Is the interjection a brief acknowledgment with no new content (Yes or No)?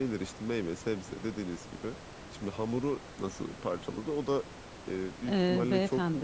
No